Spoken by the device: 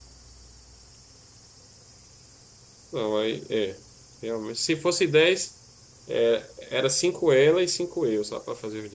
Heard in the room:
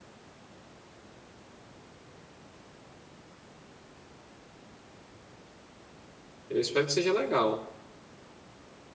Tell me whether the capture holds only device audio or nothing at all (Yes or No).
No